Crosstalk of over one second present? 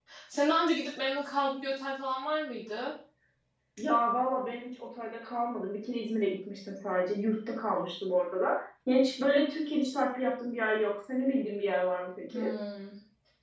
No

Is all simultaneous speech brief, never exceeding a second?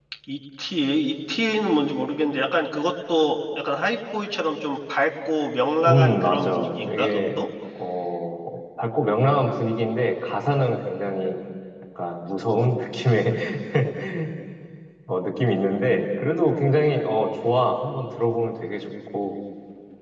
No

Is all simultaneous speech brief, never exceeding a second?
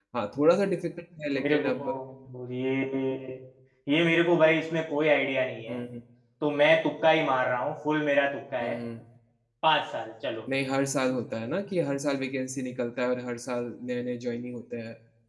Yes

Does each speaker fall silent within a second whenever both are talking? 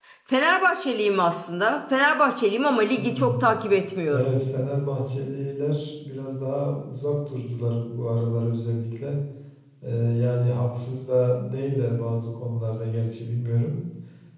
Yes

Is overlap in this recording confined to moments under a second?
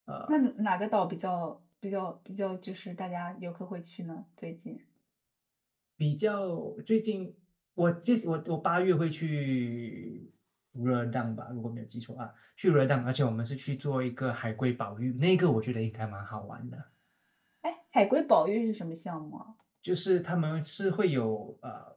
Yes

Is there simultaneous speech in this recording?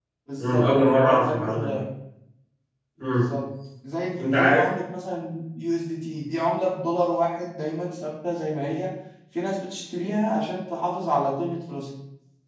Yes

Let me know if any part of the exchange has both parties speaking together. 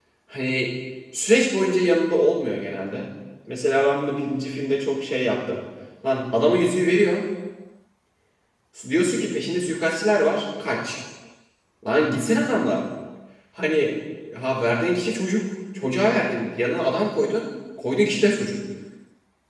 No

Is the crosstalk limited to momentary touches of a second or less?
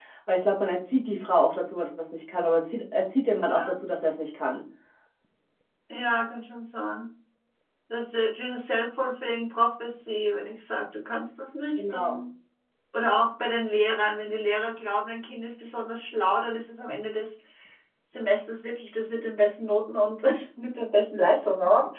Yes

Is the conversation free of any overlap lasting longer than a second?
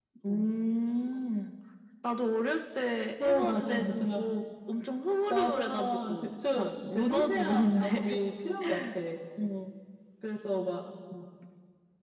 No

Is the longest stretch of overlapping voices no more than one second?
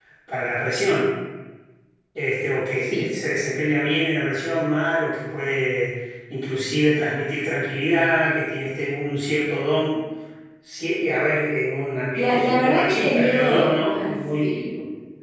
No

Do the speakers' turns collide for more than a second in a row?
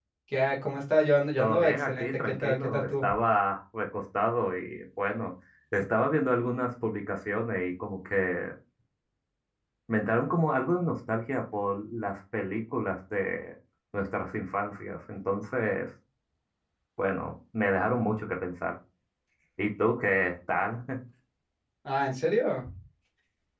Yes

